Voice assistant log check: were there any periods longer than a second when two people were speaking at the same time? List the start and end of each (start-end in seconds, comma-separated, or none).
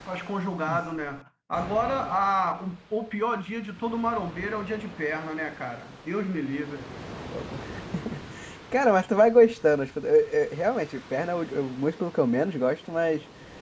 none